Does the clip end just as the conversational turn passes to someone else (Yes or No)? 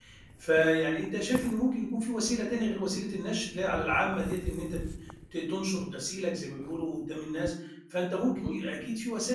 No